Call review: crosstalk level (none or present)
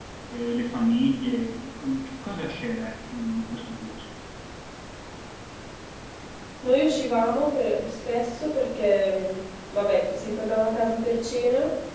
none